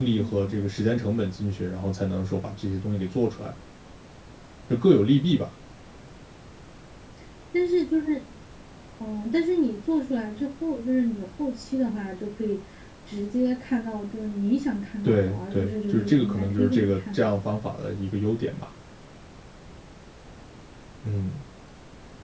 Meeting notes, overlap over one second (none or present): present